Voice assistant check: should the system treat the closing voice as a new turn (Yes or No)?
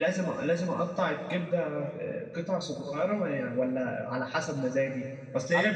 No